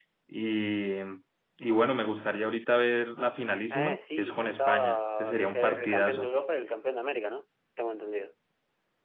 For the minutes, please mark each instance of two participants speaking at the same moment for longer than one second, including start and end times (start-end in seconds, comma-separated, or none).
3.7-6.3